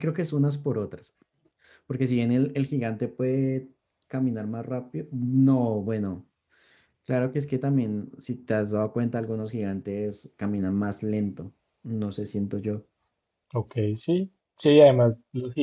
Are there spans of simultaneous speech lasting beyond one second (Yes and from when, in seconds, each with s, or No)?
No